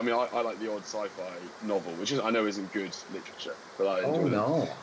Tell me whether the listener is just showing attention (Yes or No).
No